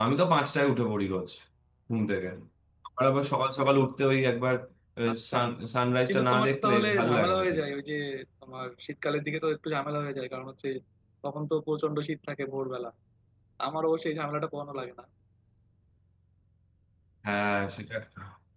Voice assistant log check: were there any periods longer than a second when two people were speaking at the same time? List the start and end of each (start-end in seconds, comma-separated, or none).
6.1-7.6